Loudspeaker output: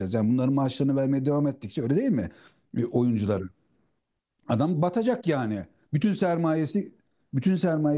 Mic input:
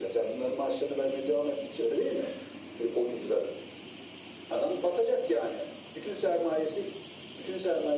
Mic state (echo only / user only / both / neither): echo only